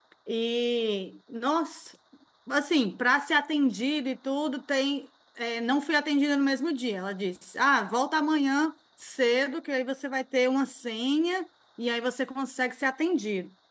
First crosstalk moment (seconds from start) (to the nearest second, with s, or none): none